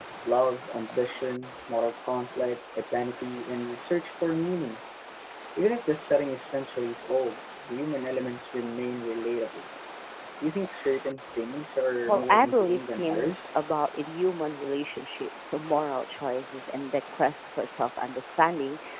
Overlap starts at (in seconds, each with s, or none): 12.1 s